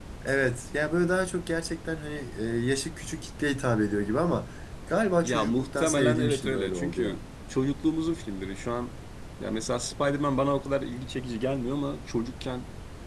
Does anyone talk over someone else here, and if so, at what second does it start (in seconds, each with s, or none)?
5.2 s